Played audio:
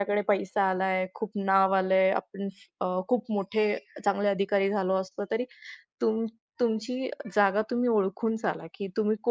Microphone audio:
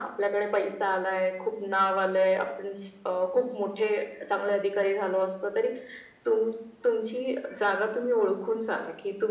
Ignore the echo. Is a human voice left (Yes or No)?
No